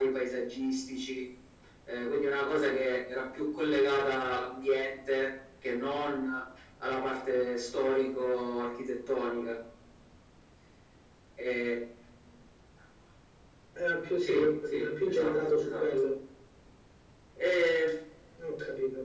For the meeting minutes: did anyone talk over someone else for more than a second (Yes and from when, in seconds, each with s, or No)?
Yes, from 14.2 s